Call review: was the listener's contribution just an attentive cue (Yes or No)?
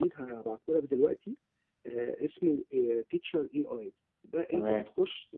Yes